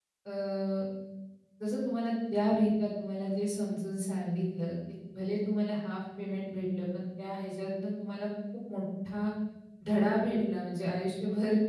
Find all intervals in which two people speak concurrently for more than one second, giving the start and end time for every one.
none

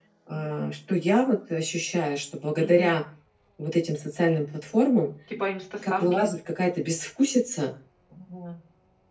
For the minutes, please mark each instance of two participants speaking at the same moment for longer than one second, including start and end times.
none

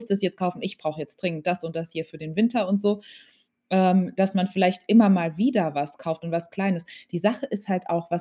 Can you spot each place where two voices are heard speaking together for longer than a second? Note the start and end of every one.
none

